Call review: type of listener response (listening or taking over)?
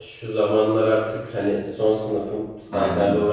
listening